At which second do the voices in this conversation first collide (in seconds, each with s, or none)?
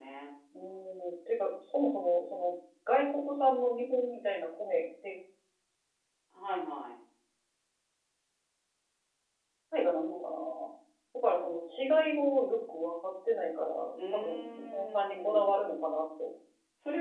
14.0 s